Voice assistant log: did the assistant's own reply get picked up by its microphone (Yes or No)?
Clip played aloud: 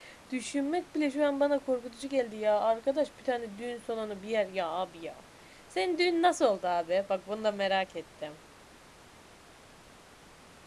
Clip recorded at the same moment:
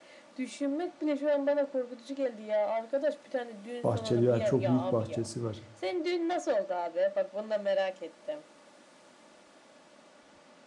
Yes